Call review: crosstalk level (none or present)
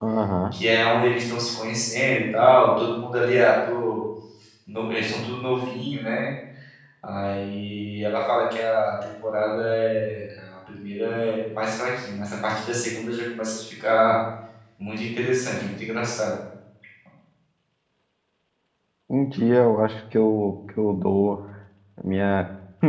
none